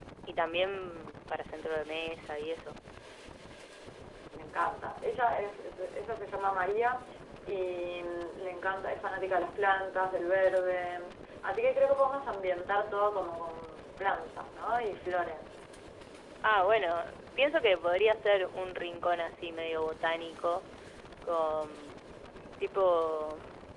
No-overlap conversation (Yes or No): Yes